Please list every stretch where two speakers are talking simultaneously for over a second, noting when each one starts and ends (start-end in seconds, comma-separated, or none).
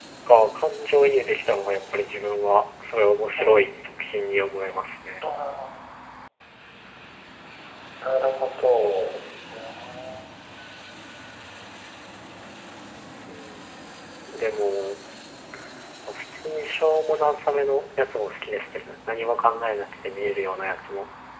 none